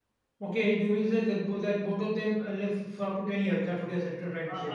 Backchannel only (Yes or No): No